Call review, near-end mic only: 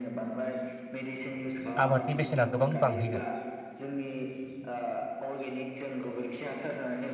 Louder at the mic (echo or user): user